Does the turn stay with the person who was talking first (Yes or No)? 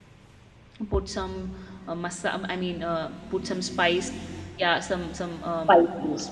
Yes